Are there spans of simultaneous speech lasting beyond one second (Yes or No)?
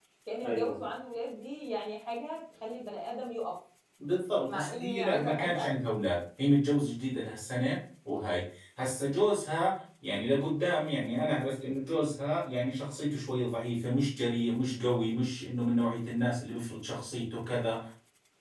Yes